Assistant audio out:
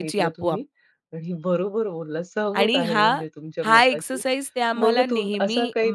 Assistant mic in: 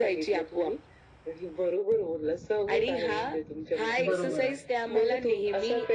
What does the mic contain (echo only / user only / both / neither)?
both